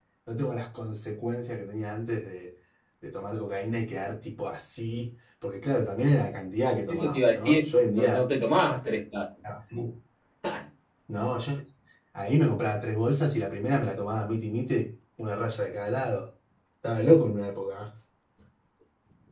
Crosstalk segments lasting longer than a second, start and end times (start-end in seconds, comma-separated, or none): 6.9-8.2